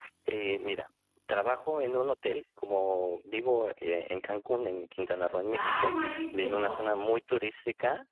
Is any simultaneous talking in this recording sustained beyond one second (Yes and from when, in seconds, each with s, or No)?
Yes, from 5.5 s